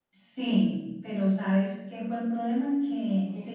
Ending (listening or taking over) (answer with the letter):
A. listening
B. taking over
A